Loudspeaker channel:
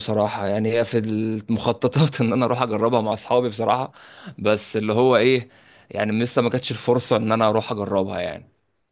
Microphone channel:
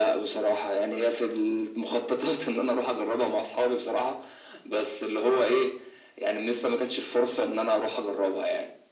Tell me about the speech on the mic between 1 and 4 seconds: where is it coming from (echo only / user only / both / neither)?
echo only